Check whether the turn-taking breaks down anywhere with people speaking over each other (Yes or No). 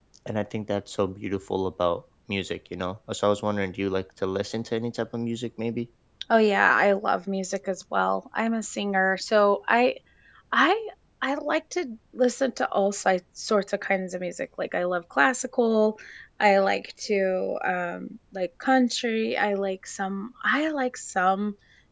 No